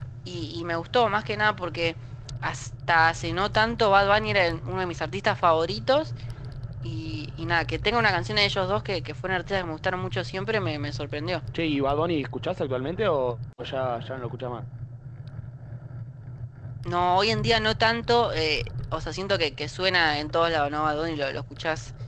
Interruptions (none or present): none